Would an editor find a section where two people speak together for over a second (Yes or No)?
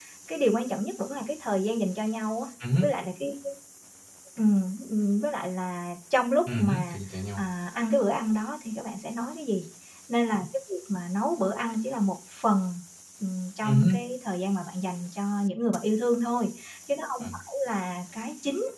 No